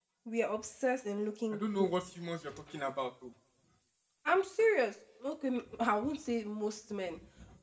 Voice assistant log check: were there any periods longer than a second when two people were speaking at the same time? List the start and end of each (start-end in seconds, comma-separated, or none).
none